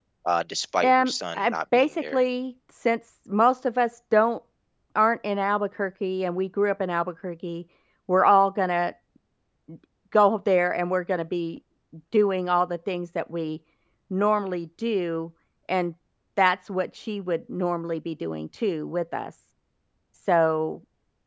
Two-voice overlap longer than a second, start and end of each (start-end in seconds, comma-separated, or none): 0.8-2.2